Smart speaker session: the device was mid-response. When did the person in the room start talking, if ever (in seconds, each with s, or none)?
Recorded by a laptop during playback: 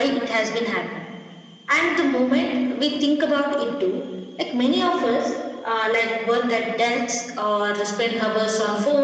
none